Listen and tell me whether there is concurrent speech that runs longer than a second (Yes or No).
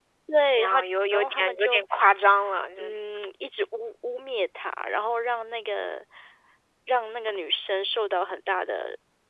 Yes